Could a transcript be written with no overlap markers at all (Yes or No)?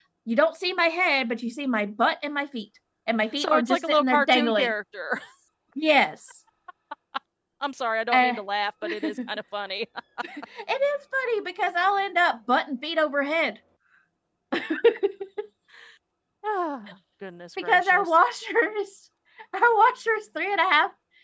No